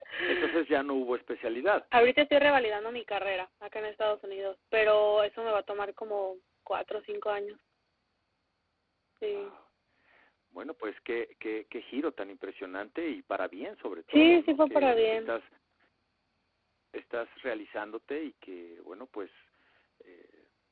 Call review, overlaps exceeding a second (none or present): present